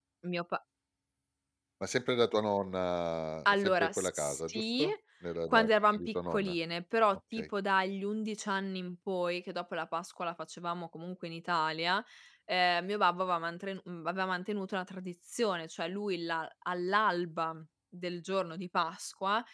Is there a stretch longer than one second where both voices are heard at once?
Yes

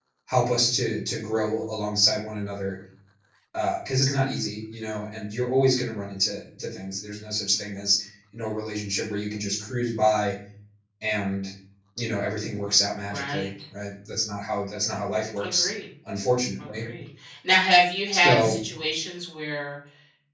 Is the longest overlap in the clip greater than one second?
No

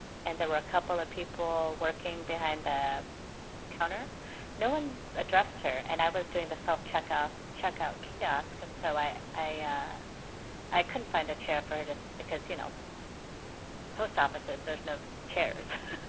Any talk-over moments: No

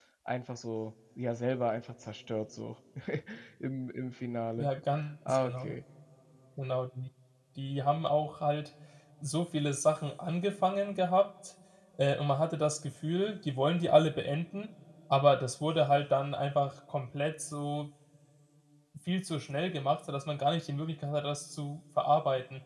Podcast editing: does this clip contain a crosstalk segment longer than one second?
No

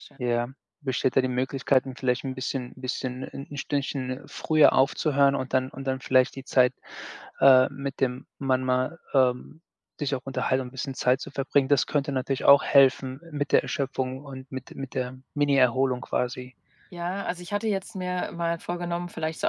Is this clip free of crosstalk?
Yes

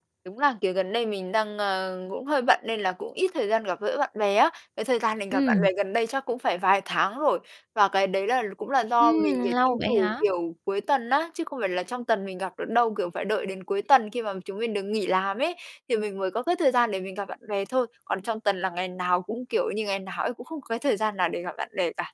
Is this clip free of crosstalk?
No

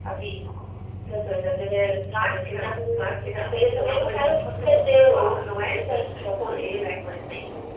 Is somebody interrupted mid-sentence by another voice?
Yes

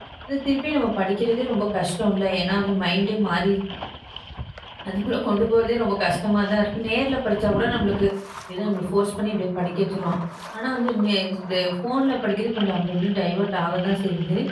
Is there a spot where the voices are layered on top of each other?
No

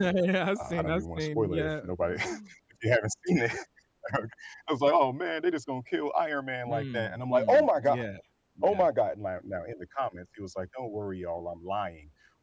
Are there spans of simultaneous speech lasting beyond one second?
Yes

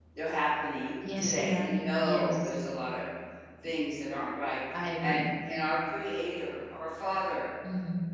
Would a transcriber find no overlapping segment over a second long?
No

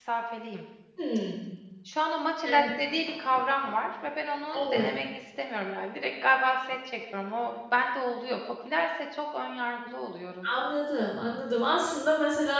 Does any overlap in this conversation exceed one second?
No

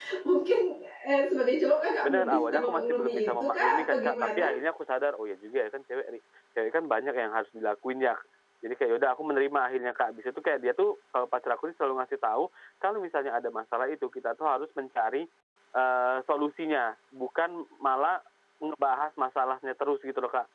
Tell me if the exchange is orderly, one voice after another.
No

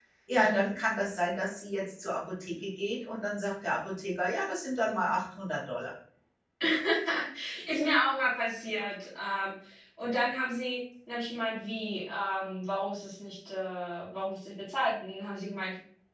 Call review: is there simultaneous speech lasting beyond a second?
No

